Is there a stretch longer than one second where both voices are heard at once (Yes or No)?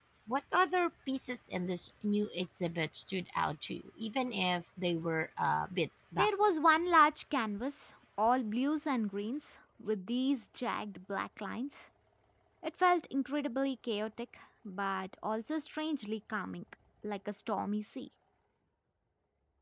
No